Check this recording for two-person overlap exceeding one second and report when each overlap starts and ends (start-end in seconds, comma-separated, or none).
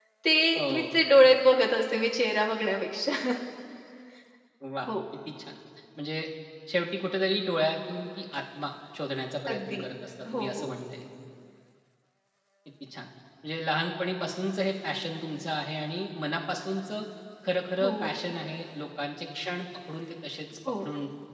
none